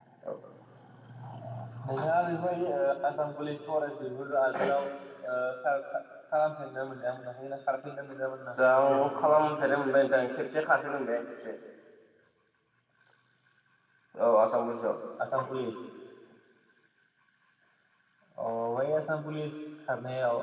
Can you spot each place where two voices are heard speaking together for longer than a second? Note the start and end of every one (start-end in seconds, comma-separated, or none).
8.6-9.8